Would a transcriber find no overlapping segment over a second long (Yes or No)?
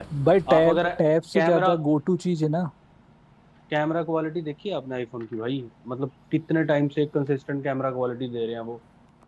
Yes